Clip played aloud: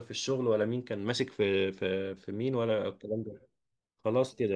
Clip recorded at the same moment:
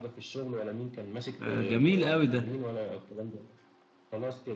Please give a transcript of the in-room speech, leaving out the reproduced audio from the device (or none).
آه، جميل قوي ده